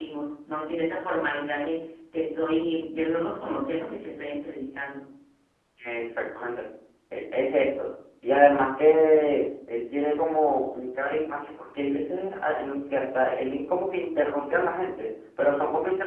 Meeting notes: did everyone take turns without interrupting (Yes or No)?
Yes